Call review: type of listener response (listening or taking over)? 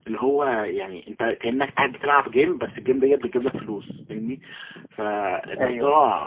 listening